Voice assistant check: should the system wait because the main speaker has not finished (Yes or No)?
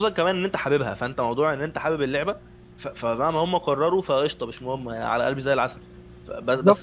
No